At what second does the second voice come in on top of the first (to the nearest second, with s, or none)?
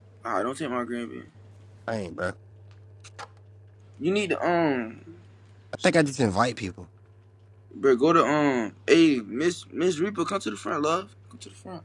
none